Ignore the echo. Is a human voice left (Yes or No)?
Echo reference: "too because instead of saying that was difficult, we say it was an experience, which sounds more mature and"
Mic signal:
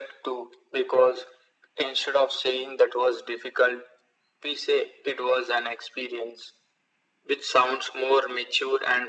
No